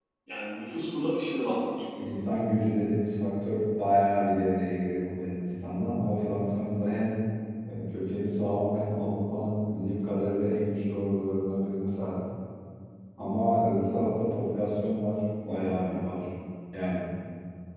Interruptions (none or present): none